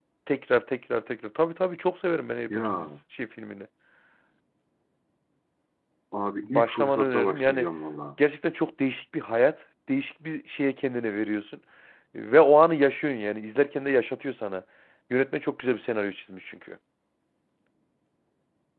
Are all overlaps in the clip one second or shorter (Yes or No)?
No